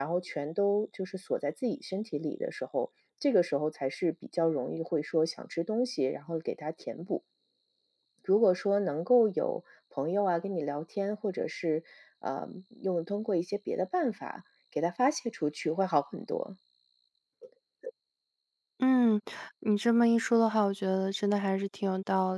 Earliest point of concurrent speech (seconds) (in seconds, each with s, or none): none